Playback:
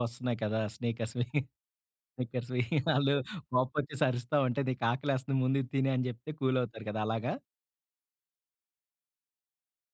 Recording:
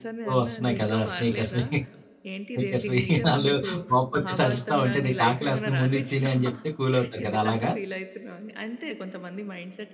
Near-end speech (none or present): present